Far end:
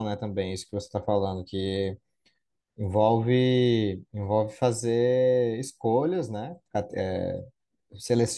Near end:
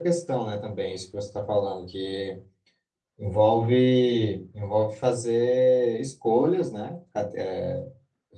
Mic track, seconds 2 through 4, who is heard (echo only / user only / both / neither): echo only